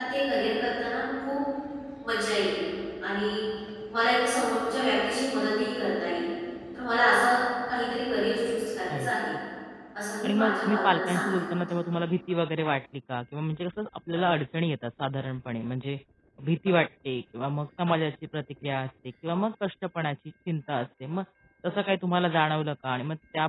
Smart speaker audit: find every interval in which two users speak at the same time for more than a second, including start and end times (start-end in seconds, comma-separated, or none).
10.2-11.6